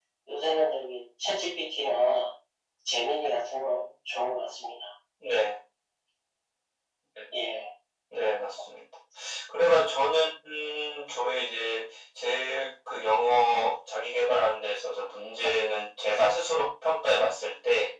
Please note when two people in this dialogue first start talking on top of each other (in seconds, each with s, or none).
none